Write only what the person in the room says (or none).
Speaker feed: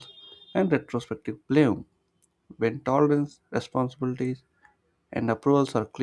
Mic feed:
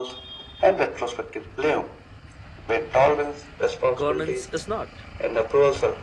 Governance is not.